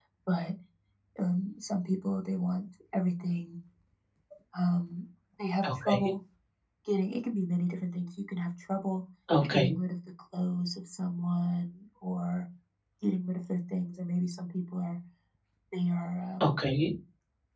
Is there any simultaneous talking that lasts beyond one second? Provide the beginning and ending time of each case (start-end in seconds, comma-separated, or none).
none